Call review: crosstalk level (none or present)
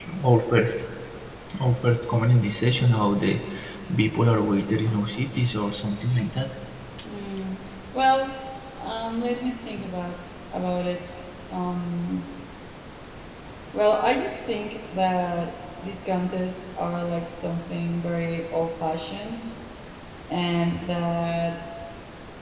none